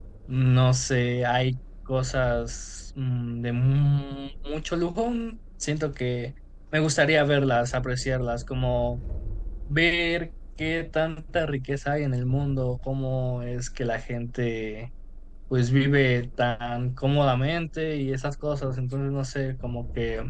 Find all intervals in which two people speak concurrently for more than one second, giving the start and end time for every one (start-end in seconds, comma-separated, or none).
none